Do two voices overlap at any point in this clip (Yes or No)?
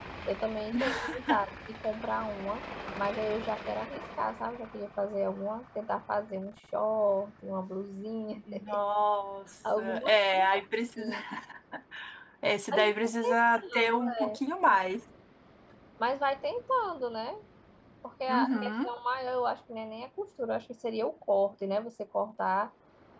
Yes